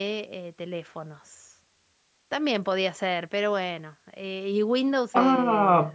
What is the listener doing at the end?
taking over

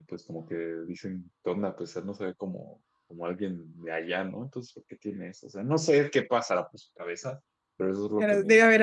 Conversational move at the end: taking over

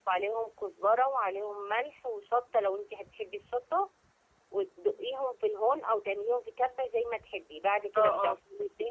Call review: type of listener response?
taking over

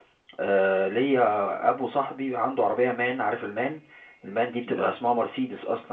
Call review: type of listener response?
listening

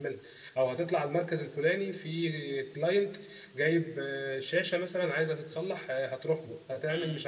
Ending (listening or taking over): listening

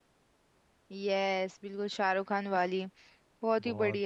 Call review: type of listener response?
taking over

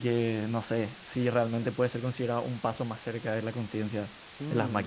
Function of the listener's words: taking over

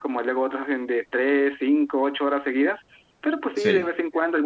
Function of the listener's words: listening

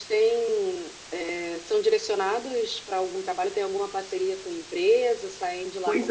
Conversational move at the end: taking over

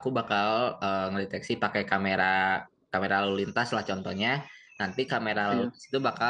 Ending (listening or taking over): listening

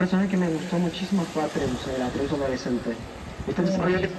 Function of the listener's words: taking over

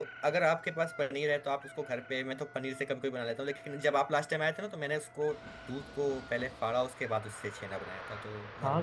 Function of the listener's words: taking over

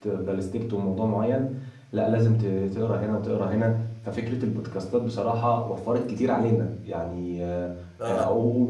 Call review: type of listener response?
listening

